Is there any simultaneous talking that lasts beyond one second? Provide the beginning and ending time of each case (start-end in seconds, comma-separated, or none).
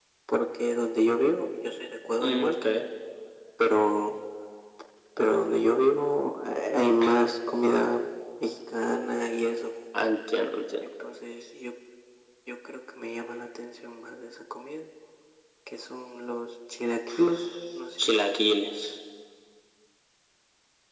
none